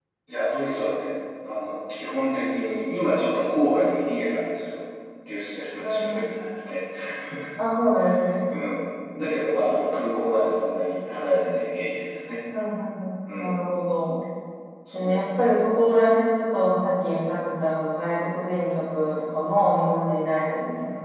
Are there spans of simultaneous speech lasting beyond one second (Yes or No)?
No